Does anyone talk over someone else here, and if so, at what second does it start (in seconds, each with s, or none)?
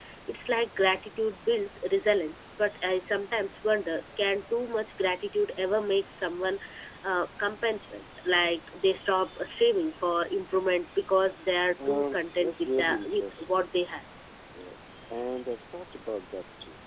11.8 s